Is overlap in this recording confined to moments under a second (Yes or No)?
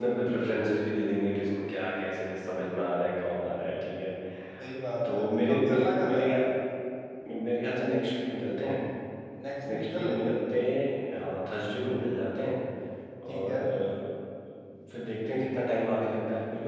No